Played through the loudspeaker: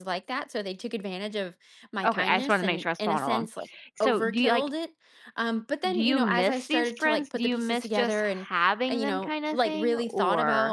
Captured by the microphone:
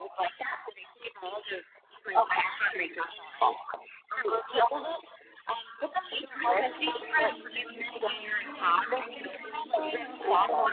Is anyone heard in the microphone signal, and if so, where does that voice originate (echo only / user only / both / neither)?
both